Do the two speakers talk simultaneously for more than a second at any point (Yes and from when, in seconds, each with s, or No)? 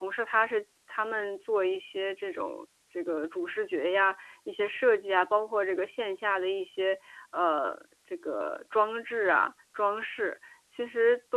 No